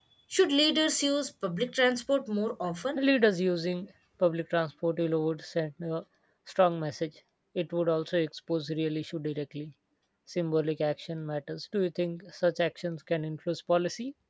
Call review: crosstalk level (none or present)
none